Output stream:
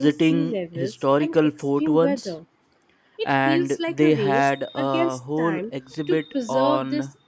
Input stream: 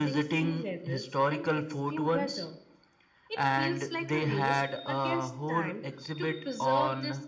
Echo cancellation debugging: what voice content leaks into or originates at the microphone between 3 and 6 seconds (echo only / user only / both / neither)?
echo only